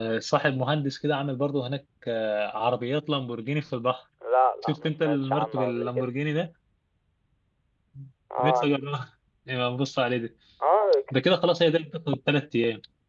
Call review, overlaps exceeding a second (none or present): present